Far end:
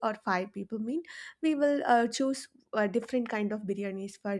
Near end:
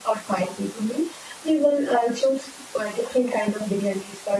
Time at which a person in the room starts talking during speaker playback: none

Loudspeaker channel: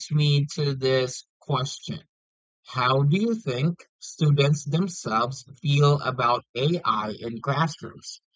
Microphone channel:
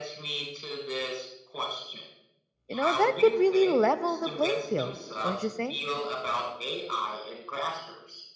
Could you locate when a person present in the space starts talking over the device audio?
2.7 s

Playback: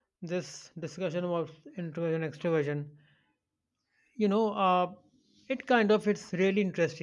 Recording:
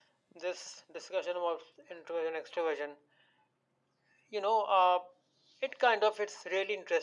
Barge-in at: none

